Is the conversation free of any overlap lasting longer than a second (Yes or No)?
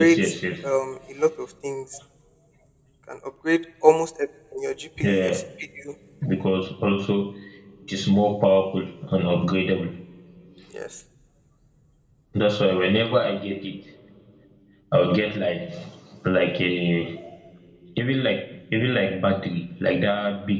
Yes